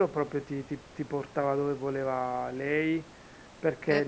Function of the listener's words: listening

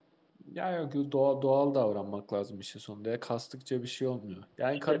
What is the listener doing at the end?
listening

